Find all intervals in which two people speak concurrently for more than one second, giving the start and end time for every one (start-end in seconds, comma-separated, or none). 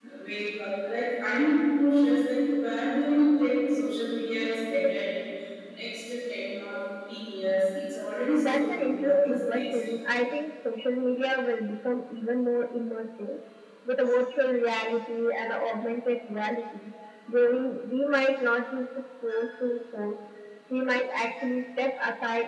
8.3-9.6